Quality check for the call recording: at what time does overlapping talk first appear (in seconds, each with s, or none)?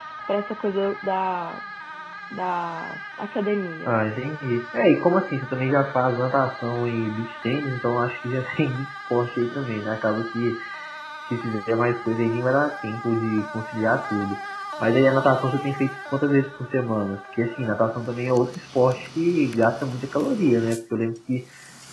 none